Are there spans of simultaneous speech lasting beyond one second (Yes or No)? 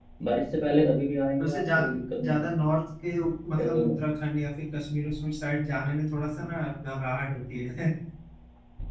No